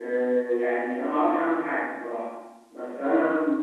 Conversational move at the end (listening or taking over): listening